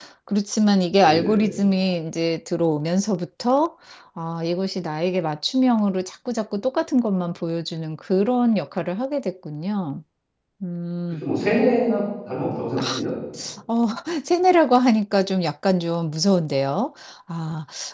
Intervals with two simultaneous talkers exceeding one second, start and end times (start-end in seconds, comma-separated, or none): none